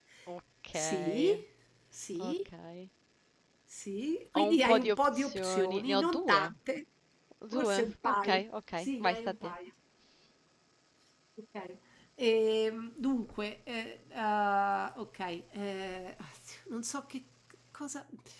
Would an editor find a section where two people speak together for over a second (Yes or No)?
Yes